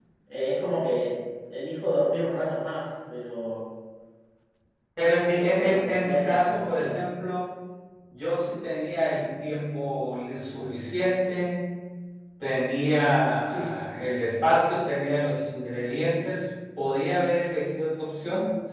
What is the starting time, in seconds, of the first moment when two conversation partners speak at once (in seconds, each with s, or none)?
5.5 s